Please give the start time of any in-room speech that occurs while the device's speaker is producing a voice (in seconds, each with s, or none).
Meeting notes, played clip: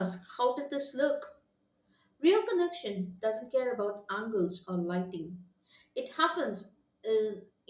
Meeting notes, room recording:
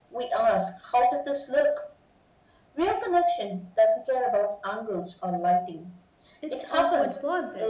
6.4 s